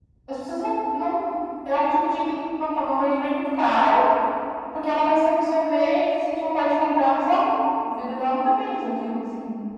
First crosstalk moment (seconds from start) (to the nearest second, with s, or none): none